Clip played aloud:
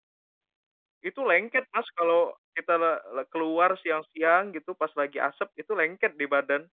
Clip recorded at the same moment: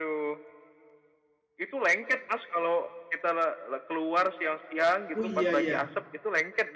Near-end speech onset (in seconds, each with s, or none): 5.2 s